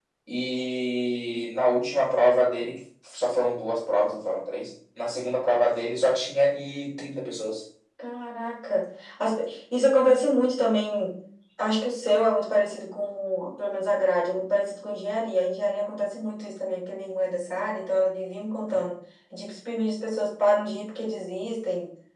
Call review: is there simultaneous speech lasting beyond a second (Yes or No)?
No